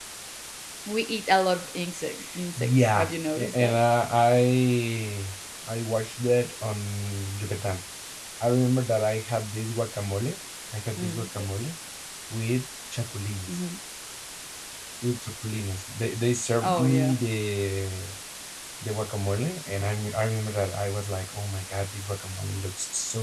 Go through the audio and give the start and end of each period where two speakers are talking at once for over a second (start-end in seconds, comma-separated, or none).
2.6-3.8